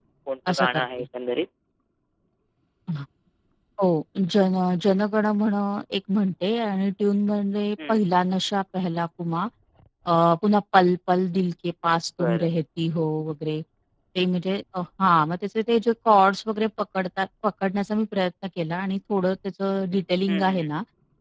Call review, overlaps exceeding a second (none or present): none